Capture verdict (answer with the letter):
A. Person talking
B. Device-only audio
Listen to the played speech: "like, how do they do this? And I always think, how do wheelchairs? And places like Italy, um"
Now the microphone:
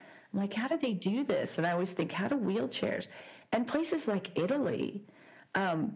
B